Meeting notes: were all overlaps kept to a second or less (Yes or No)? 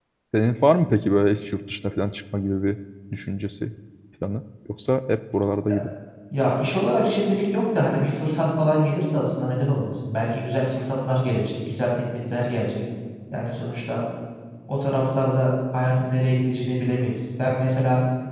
Yes